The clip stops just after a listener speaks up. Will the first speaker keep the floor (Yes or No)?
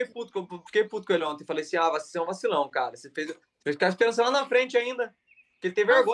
Yes